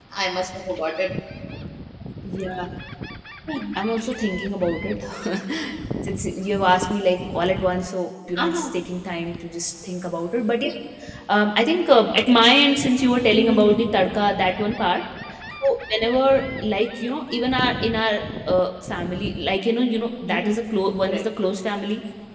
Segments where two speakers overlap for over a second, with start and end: none

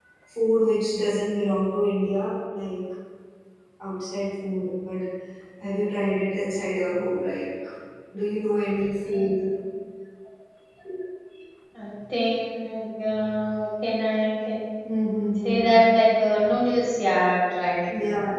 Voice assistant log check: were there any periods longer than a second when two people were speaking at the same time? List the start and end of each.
none

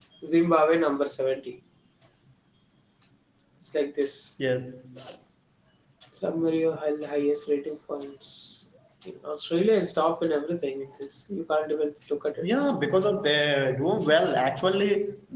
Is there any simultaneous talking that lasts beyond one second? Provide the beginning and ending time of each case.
none

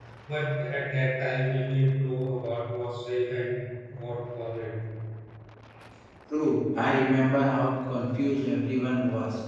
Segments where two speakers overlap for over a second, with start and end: none

